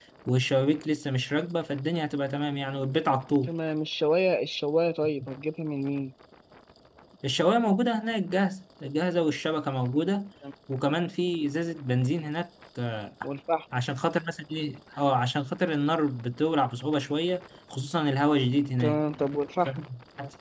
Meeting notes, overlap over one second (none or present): none